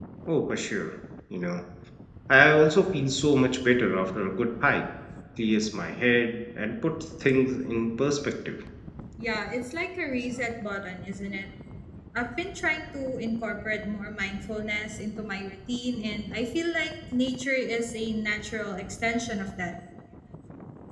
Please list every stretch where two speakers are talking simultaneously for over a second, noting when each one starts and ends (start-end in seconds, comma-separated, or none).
none